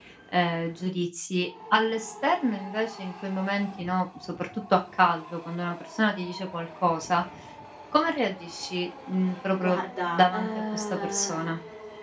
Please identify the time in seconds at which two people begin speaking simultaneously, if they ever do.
10 s

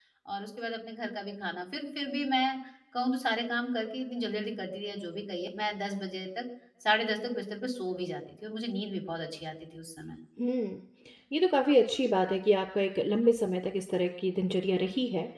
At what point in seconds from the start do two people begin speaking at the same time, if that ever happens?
none

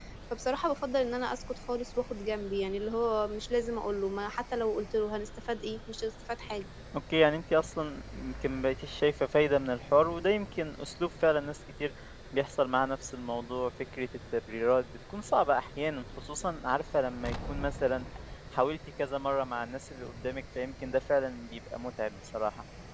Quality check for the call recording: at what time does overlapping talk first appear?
none

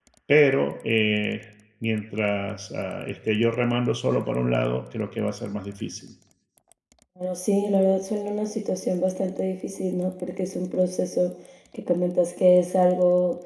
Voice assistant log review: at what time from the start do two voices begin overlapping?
none

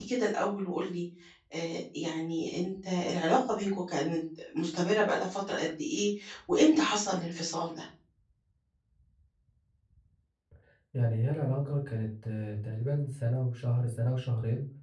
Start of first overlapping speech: none

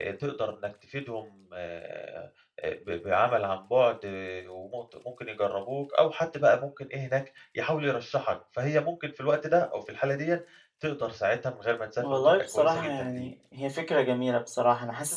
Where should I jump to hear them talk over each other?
12 s

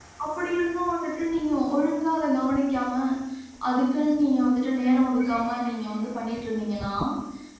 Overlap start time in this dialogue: none

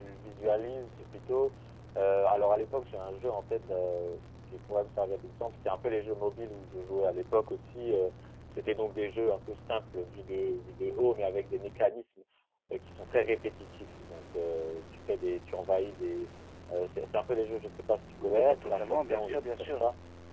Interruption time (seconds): 18 s

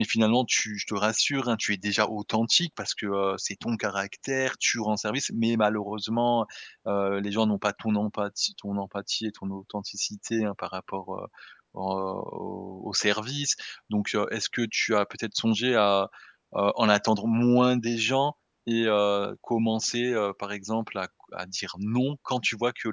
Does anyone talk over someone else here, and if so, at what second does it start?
none

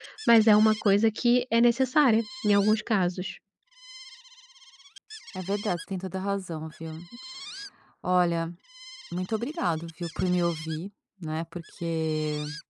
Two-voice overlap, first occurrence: none

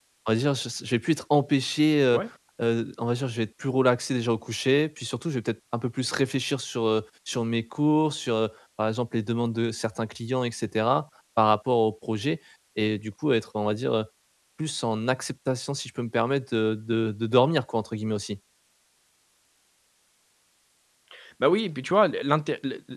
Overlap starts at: none

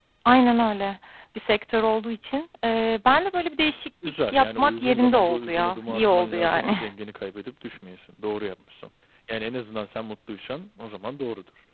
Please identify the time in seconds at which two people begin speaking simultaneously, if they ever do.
4 s

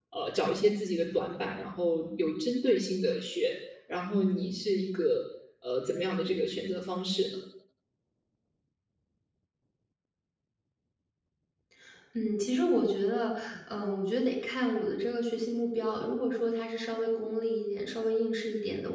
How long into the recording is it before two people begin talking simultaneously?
none

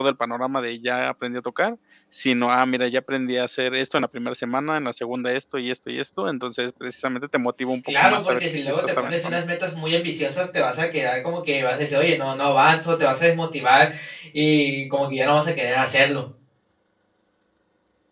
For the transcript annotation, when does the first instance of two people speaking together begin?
8 s

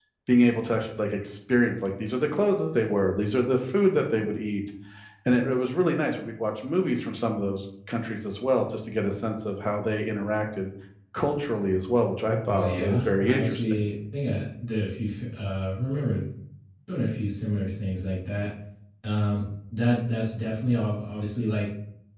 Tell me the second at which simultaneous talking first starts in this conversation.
12 s

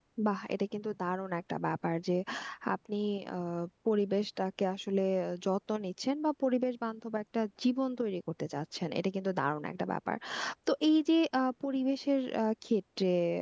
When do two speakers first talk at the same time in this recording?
none

